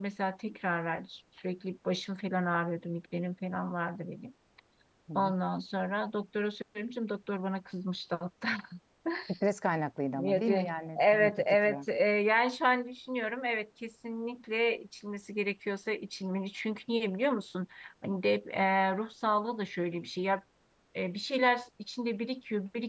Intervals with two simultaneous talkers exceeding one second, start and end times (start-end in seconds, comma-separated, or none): 10.1-11.8